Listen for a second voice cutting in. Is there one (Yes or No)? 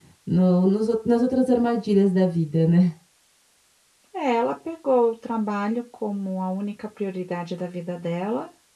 No